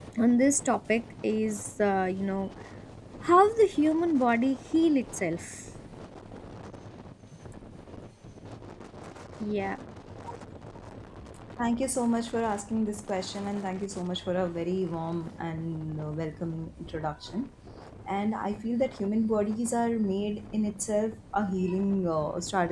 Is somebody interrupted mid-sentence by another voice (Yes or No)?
No